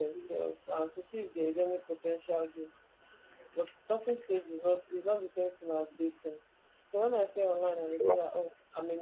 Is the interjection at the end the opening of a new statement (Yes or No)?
No